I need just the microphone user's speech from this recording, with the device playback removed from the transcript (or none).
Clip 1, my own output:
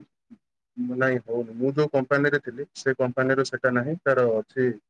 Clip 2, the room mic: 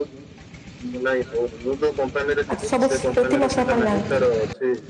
ଆଚ୍ଛା ସବୁ ପ୍ରତି ମାସ ଆପଣ ଜାଆନ୍ତି?